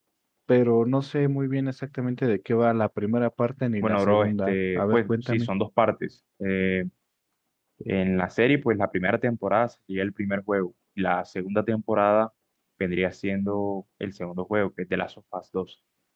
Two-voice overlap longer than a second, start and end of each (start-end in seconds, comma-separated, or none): 3.8-5.5